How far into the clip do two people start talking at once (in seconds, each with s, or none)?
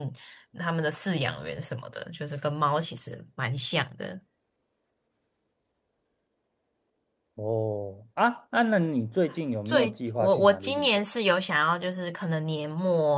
9.7 s